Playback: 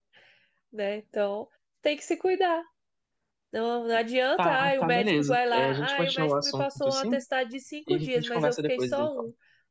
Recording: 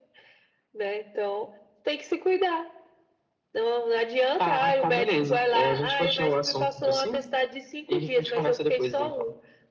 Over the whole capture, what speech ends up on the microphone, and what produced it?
echo only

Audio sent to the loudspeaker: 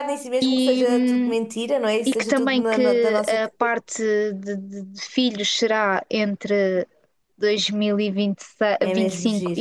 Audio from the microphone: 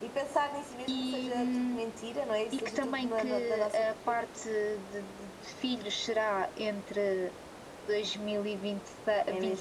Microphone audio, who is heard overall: echo only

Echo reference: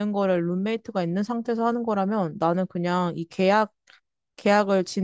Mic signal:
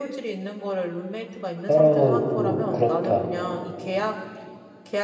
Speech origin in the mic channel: both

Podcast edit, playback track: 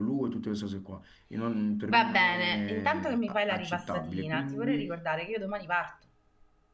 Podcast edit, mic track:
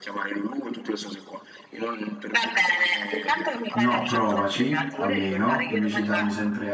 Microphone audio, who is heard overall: both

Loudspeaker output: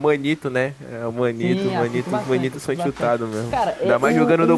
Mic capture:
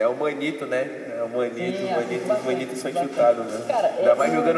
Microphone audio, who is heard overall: echo only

